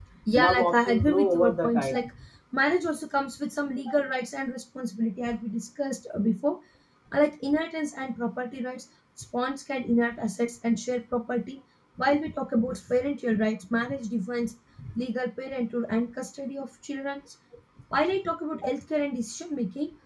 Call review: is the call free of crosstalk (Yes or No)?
No